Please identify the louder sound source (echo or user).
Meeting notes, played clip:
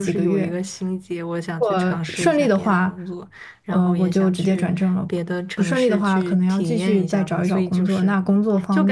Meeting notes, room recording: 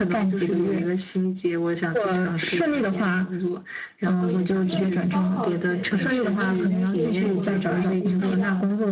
echo